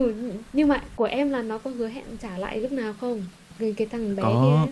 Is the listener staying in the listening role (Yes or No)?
No